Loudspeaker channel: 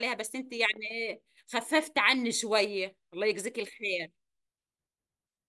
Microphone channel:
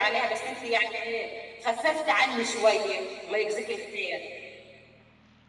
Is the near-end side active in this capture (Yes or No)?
No